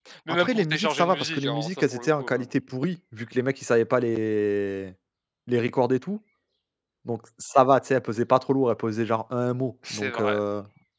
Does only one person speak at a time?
No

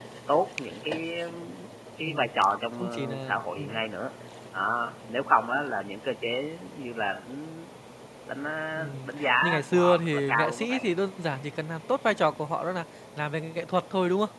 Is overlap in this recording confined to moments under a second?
No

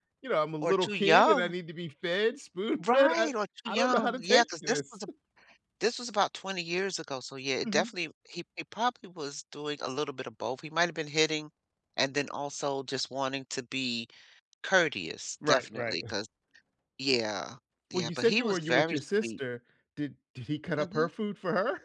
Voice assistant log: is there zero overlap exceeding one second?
No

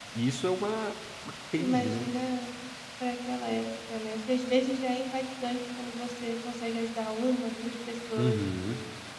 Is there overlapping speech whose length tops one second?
No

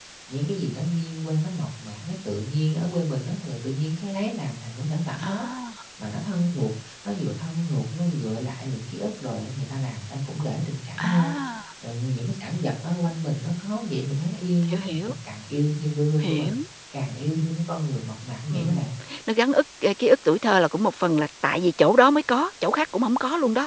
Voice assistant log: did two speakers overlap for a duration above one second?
No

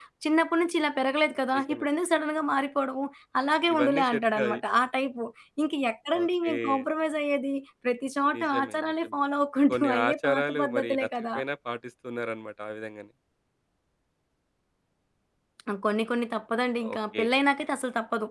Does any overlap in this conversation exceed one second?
Yes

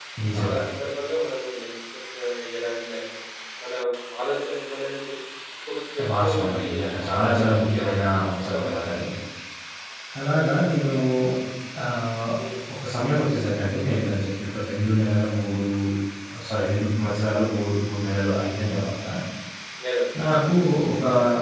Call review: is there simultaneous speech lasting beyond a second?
Yes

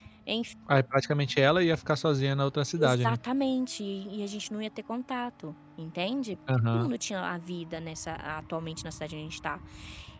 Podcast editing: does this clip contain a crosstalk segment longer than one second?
No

